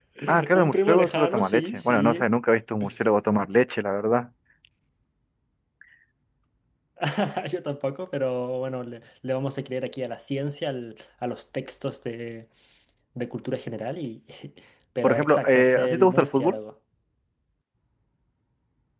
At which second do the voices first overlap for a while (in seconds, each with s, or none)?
0.5 s